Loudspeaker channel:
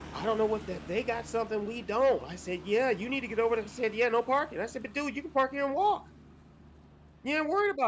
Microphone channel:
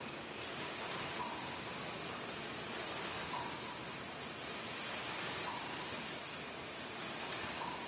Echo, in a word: none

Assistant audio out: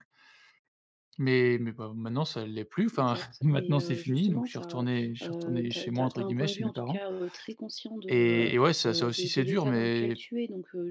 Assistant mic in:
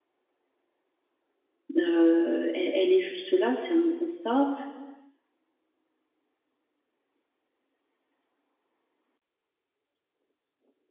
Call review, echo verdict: none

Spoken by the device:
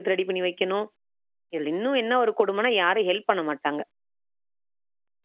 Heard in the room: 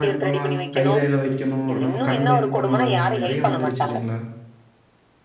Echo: present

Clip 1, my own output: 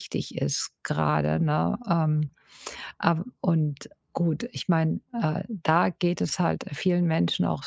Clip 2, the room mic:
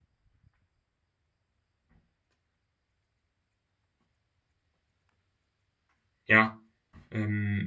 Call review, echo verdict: none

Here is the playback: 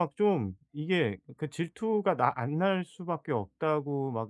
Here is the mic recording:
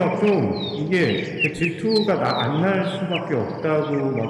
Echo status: present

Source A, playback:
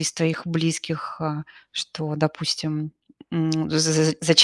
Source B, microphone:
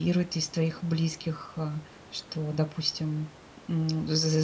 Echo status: present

